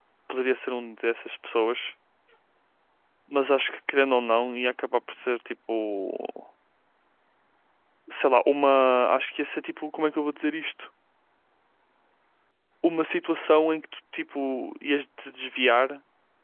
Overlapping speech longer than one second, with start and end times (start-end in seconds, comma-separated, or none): none